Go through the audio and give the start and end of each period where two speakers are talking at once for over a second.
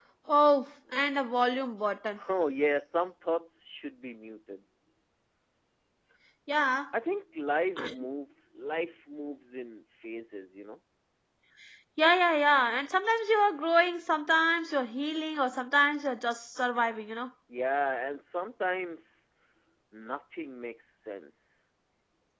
none

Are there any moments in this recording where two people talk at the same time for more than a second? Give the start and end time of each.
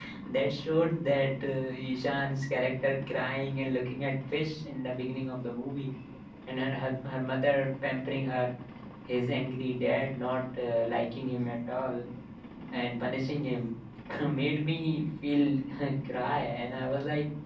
none

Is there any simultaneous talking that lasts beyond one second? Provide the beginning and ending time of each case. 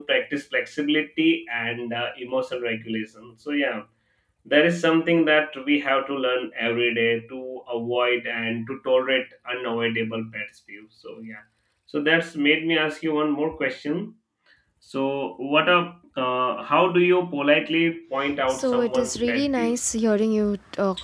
18.5-19.7

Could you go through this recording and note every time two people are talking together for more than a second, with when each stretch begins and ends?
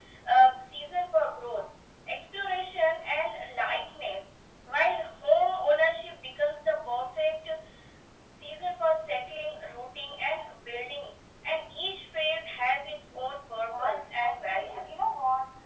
13.7-14.9

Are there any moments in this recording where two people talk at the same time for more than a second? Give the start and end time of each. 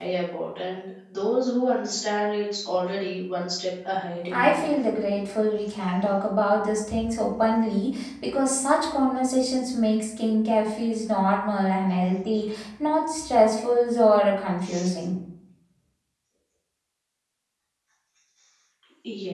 none

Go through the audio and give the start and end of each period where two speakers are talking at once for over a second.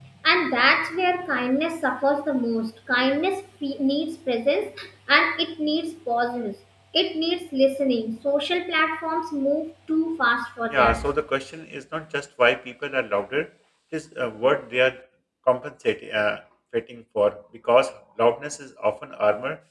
none

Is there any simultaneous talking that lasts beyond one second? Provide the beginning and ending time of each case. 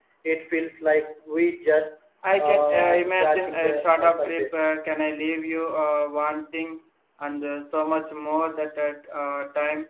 2.4-4.6

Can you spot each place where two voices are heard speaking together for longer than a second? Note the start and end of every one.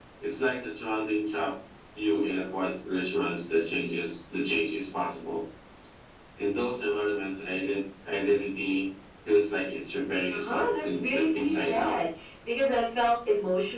10.3-12.0

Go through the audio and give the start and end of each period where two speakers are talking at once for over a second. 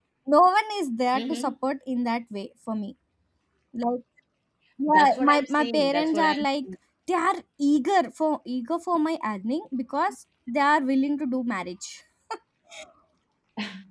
4.9-6.7

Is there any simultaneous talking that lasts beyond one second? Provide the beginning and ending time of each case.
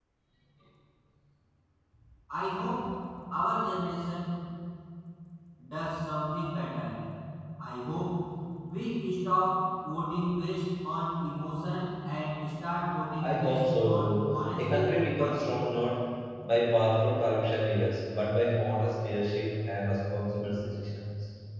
13.2-15.4

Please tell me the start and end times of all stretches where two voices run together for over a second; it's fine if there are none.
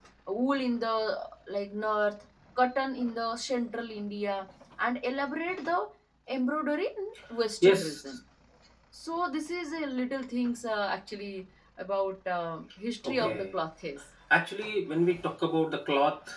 none

